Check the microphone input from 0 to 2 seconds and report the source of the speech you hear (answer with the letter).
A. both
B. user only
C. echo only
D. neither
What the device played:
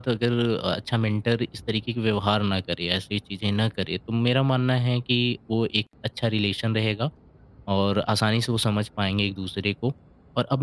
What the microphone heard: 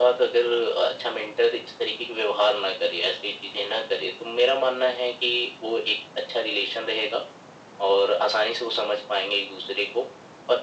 C